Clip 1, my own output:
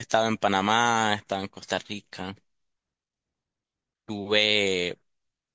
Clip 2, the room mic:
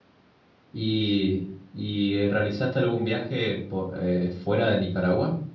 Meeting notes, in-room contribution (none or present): present